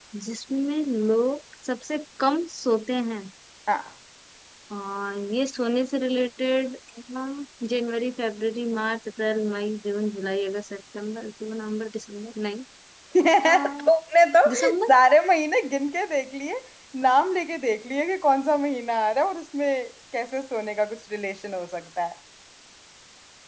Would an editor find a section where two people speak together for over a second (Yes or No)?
No